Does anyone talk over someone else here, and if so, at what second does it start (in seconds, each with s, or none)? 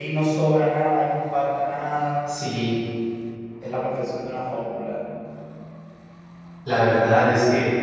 none